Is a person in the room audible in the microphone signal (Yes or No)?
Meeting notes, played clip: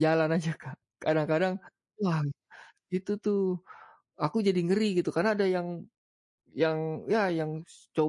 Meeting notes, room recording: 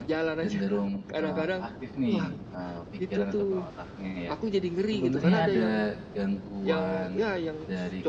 Yes